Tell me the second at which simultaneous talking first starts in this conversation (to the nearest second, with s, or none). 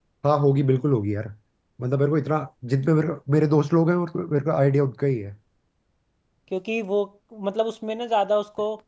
none